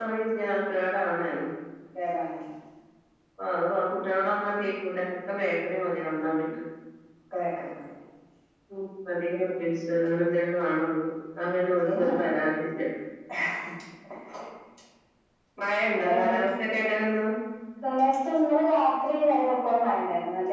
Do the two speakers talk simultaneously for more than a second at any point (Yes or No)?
No